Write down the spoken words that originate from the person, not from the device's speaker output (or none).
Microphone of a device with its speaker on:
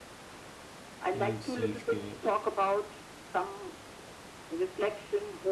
well self-care